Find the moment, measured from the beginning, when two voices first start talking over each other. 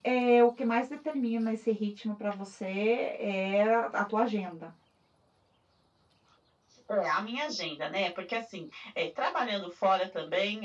none

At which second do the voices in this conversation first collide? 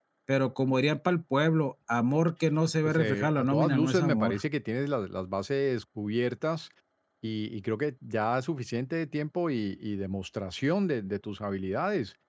2.8 s

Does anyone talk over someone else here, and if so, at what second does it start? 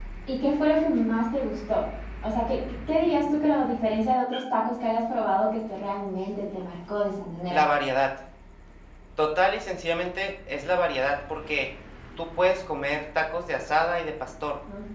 none

